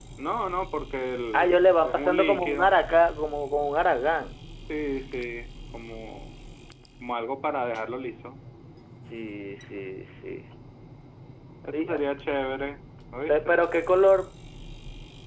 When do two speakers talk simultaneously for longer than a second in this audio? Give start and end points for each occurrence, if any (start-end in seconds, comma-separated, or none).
1.3-2.8